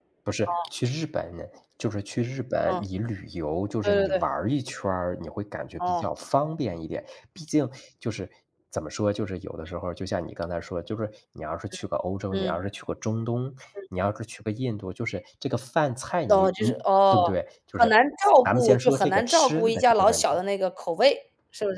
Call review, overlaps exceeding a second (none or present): present